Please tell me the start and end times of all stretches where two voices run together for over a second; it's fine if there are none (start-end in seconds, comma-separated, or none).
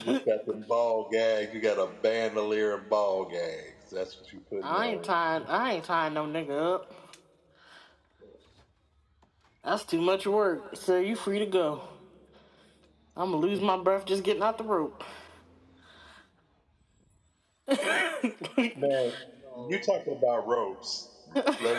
none